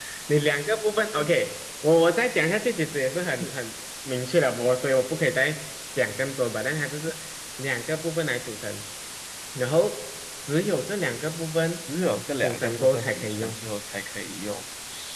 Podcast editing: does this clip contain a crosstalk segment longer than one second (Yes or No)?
Yes